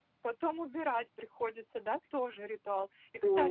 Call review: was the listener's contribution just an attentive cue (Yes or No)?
Yes